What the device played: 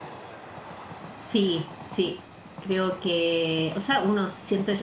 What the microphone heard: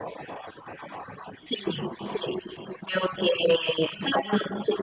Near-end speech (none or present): none